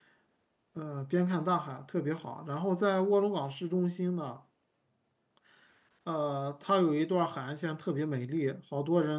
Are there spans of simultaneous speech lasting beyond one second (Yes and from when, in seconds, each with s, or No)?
No